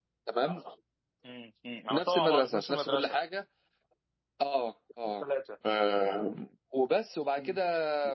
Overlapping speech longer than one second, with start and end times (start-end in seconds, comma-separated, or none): 1.9-3.2